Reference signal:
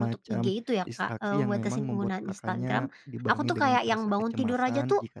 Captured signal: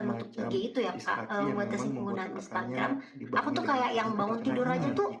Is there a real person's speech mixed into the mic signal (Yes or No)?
Yes